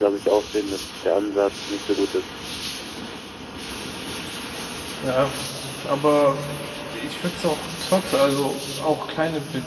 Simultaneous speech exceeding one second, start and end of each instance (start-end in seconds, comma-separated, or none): none